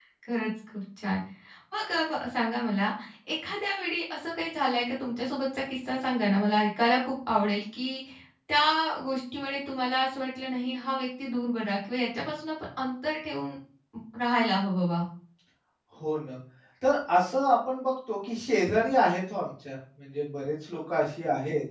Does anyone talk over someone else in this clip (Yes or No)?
No